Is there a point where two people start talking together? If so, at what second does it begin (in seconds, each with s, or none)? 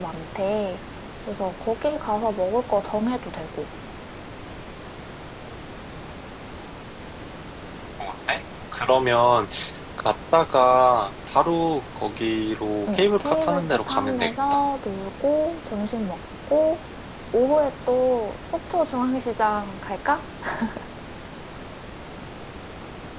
12.9 s